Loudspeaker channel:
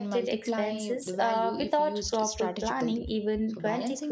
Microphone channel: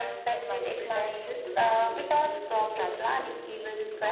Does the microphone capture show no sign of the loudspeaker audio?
No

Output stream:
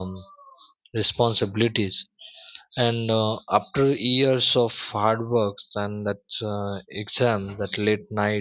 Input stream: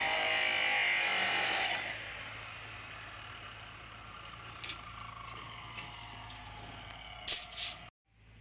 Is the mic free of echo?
Yes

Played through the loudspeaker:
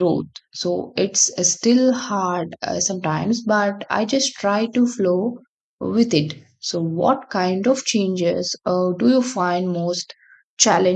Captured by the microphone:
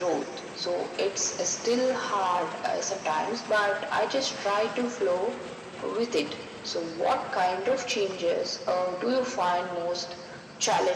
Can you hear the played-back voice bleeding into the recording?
Yes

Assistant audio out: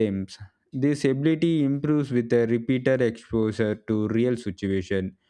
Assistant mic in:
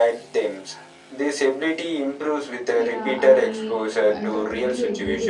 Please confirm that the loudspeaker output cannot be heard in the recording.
No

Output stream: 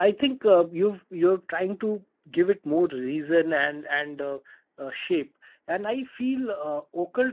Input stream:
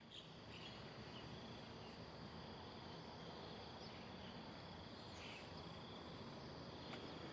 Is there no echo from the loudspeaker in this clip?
Yes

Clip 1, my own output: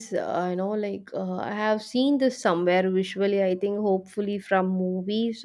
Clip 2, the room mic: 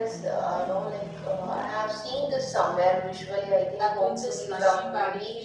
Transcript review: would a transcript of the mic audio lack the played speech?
No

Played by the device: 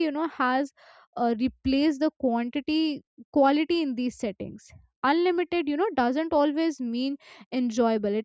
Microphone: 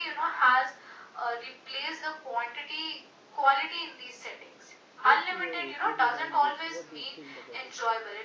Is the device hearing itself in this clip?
Yes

